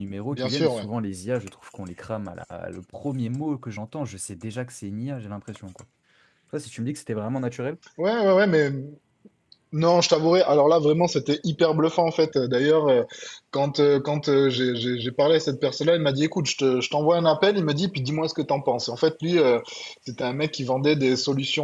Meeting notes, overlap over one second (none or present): none